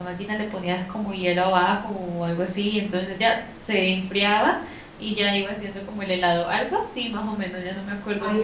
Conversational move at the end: taking over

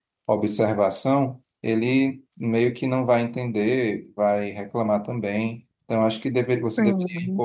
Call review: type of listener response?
listening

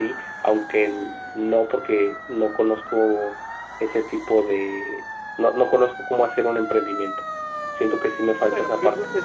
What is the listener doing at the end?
taking over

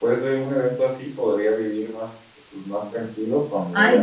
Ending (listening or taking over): taking over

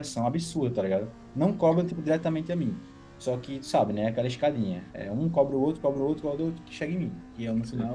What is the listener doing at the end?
taking over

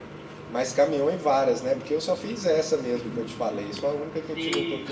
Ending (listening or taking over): taking over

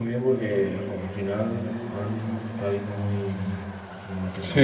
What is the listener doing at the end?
taking over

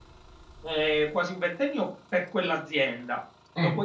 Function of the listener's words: listening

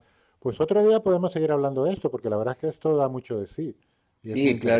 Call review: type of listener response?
taking over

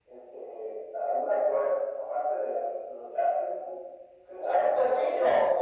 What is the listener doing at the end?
taking over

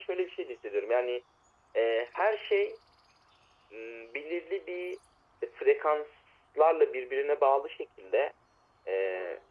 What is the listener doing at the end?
listening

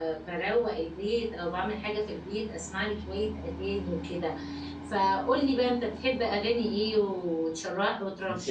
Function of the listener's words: taking over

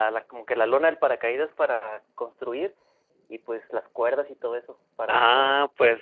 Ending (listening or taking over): taking over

